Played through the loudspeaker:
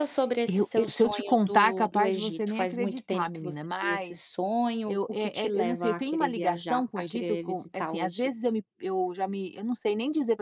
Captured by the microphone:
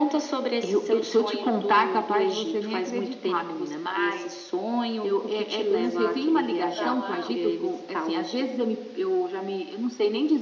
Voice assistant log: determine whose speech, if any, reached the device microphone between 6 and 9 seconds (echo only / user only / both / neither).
both